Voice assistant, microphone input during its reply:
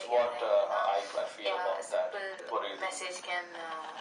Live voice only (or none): none